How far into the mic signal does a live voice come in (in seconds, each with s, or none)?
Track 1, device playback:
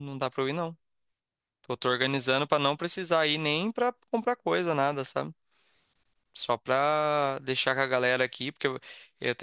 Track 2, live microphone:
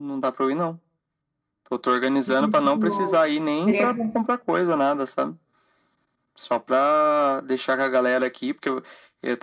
2.3 s